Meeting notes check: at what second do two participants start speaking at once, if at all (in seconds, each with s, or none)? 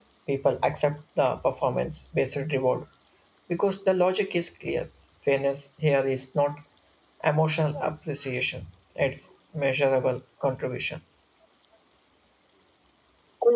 none